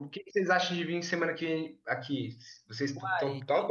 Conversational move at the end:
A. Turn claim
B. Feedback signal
A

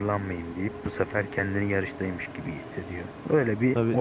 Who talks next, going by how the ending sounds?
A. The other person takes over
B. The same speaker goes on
A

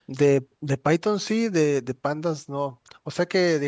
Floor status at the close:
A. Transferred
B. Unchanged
B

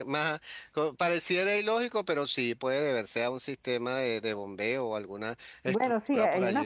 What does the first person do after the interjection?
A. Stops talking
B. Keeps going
A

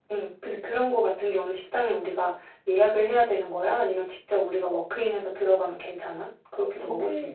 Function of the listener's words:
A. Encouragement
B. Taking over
B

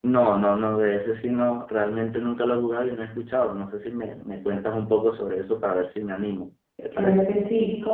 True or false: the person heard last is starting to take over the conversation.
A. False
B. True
B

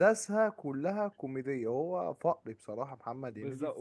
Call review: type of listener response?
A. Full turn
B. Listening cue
A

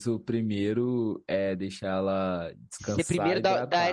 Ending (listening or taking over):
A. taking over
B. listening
A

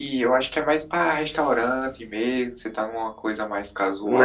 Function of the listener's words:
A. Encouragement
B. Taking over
B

